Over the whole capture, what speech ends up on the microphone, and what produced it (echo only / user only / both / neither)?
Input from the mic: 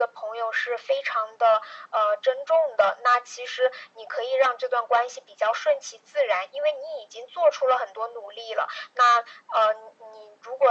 echo only